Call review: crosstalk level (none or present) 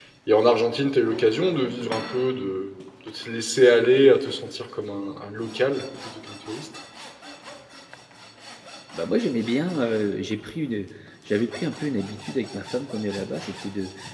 none